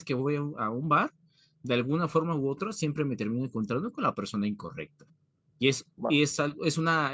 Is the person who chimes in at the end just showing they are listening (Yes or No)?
Yes